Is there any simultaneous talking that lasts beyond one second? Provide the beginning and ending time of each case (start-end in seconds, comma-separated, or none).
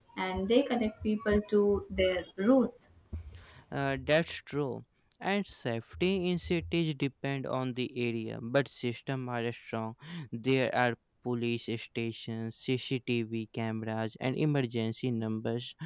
none